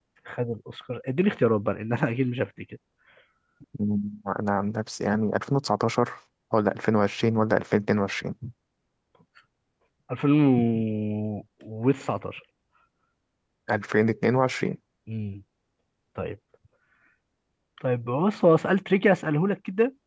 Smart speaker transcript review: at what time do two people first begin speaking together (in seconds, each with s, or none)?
none